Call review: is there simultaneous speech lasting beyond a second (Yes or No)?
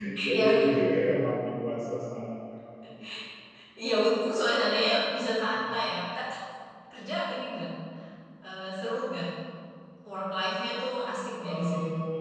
No